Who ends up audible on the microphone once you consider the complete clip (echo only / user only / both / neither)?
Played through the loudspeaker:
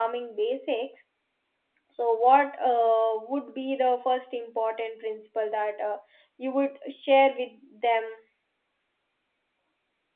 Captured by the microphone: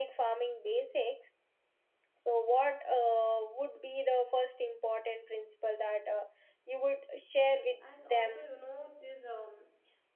both